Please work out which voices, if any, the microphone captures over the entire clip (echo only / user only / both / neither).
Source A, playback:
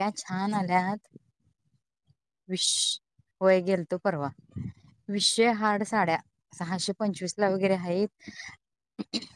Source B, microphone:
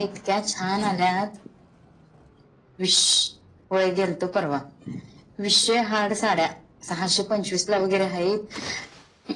echo only